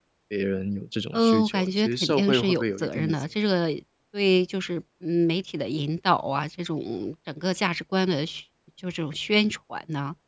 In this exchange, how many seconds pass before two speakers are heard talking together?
1.1 s

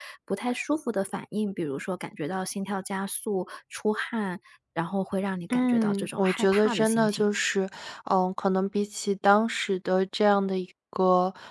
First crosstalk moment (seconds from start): 5.5 s

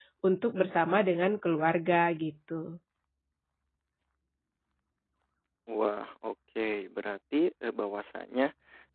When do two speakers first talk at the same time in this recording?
none

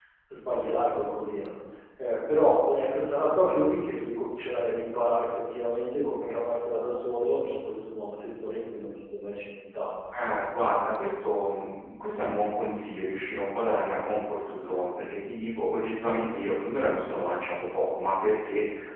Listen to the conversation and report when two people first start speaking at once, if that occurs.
none

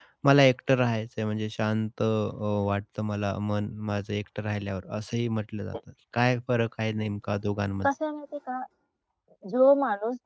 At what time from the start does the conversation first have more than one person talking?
none

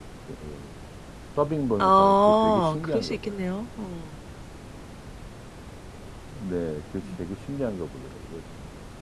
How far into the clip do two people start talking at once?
1.8 s

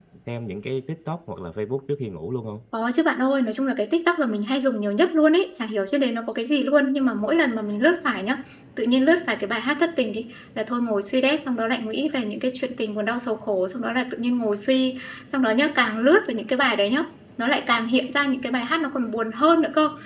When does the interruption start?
none

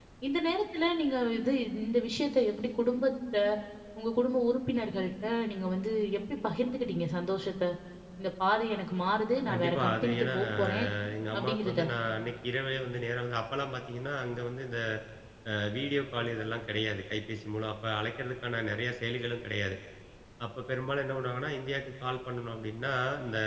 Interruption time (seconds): 9.5 s

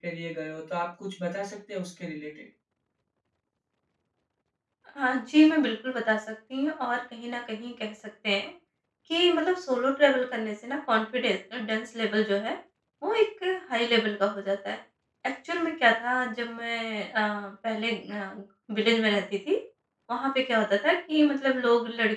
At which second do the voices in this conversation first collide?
none

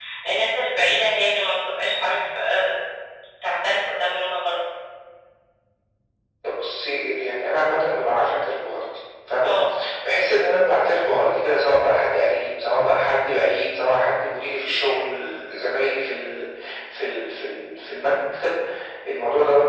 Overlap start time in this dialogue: none

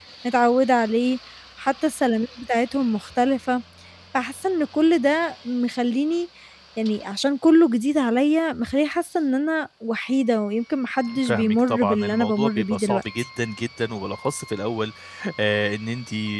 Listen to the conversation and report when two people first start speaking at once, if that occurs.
11.1 s

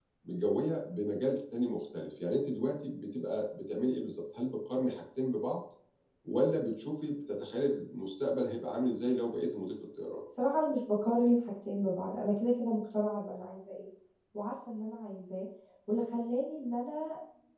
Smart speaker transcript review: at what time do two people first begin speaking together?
none

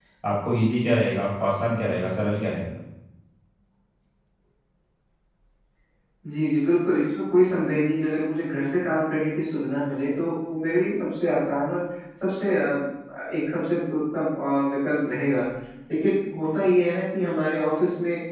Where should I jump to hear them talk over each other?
none

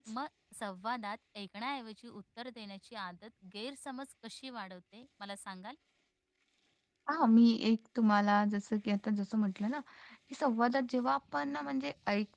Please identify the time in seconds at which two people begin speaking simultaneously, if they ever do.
none

